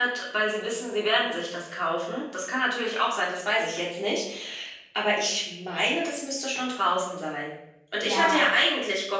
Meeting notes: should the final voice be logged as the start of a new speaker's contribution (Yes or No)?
No